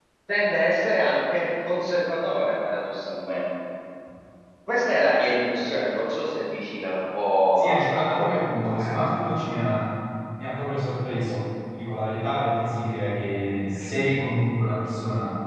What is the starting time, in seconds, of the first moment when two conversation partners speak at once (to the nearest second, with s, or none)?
8 s